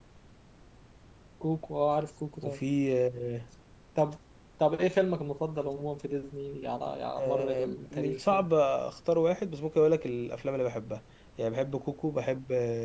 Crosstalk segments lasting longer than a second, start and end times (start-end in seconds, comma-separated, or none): 7.2-8.4